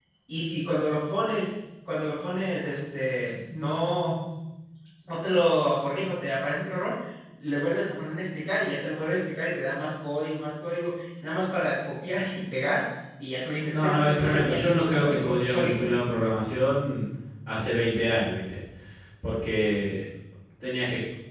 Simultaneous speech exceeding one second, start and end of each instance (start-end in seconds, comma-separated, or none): 13.7-15.9